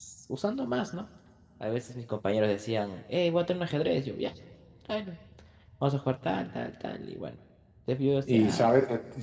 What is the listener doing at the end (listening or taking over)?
taking over